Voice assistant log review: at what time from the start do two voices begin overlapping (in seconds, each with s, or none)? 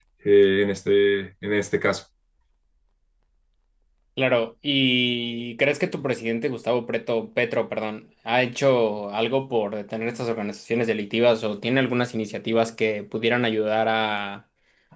none